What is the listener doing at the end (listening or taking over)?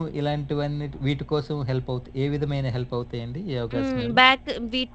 taking over